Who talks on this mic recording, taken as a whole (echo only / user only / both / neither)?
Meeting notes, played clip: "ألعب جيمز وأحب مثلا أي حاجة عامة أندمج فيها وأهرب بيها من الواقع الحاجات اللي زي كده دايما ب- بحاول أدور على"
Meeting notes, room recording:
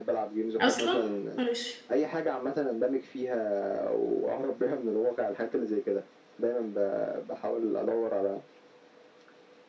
both